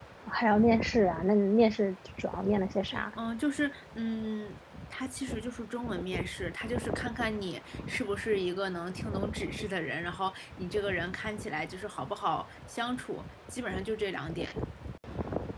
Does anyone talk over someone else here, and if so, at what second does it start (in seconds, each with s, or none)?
none